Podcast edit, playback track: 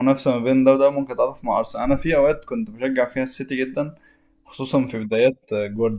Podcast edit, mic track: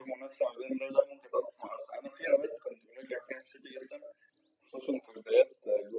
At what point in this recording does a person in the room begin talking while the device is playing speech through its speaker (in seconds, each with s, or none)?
none